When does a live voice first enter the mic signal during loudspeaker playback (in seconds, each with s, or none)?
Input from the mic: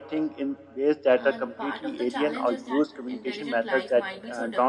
1.2 s